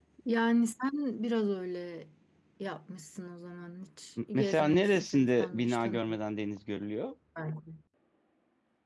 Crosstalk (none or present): present